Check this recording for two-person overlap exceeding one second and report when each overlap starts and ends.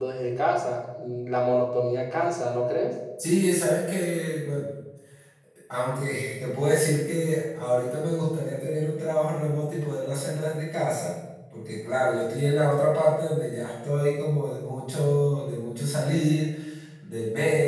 none

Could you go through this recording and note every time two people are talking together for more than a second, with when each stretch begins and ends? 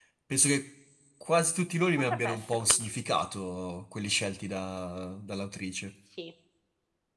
2.0-3.2

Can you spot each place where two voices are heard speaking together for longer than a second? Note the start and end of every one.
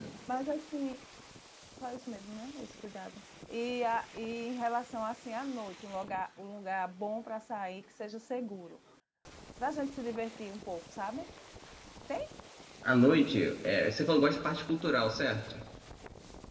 none

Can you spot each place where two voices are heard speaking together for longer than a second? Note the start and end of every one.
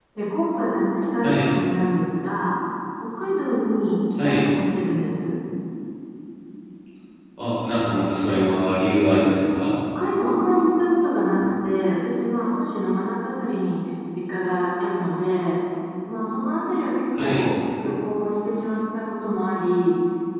none

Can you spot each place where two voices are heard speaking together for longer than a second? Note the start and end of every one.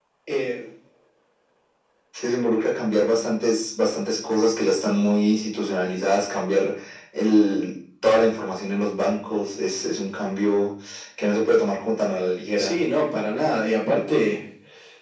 none

